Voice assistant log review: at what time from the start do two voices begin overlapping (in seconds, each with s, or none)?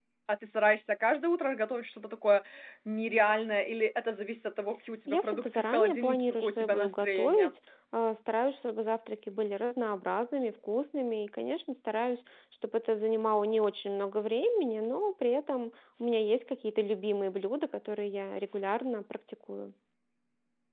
5.1 s